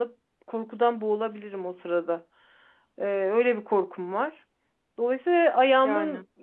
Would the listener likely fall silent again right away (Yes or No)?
Yes